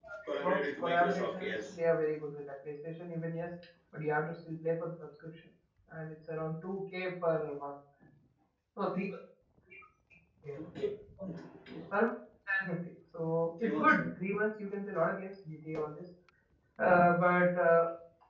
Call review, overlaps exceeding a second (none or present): present